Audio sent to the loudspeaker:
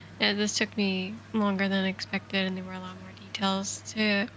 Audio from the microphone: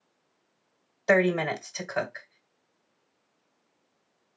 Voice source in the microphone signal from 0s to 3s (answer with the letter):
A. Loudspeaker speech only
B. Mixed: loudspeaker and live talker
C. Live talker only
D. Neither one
C